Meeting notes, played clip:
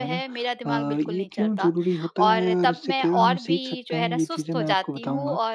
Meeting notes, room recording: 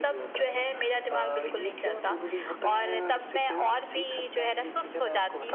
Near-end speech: none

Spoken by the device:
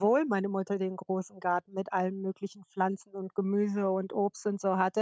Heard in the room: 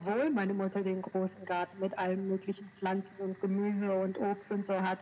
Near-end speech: none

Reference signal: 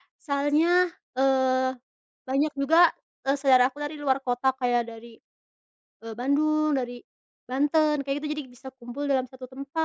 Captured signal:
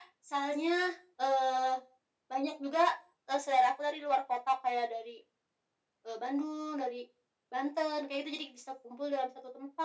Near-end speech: none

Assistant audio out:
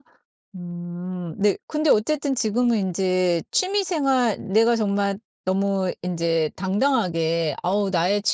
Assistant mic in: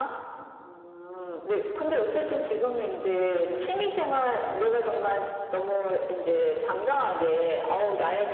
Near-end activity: none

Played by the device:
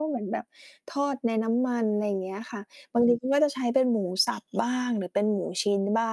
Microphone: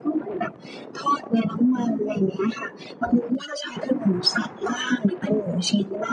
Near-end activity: none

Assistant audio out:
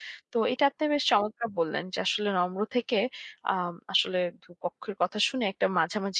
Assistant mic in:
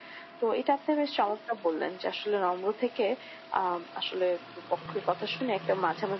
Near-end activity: none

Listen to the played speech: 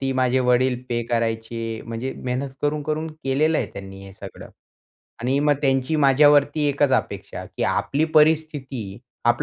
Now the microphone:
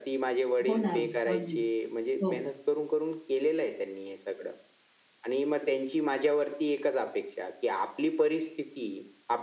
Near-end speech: present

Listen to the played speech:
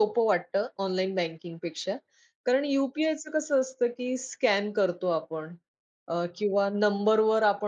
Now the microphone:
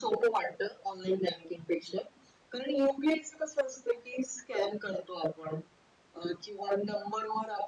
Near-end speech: none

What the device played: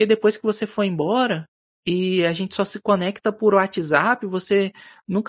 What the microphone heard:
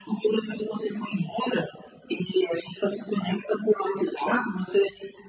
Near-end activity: none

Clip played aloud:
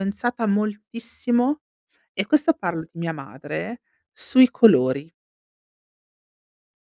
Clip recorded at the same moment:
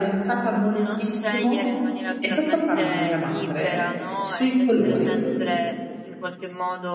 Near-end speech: present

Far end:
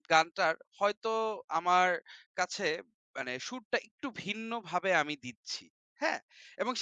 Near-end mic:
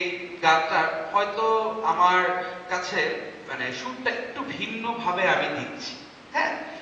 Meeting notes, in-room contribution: none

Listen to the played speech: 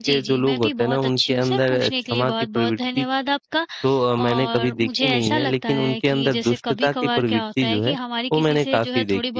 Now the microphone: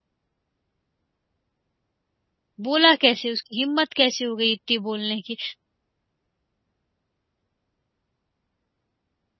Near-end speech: present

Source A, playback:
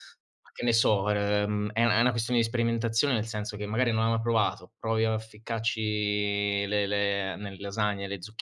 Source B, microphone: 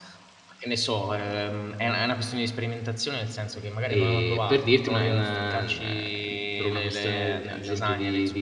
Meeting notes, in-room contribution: present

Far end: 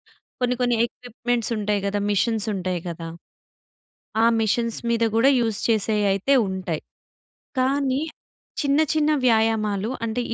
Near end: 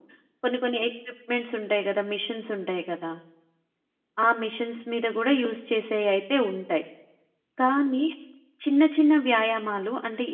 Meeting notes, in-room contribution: none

